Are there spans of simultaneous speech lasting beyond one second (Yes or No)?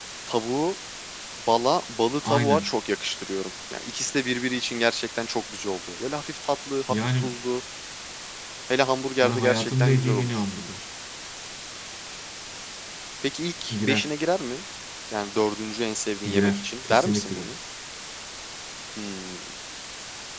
Yes